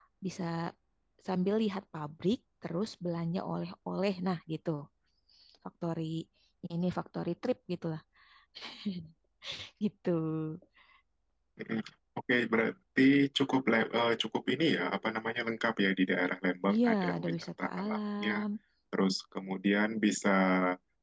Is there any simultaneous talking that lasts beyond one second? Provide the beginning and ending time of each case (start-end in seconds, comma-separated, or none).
16.7-18.3